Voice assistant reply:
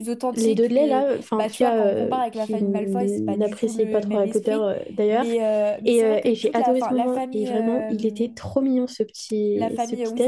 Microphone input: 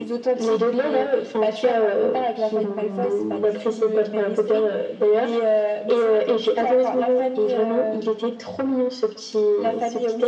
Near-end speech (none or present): none